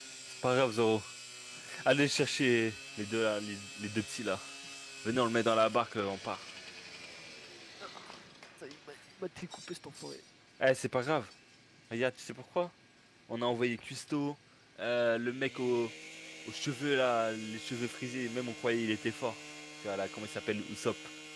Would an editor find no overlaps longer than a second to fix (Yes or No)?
Yes